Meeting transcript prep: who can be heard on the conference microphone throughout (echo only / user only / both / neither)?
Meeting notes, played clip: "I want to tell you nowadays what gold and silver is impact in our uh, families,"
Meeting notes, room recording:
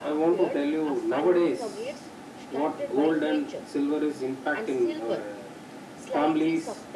both